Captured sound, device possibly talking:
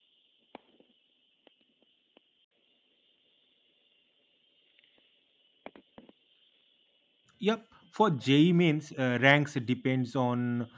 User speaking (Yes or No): Yes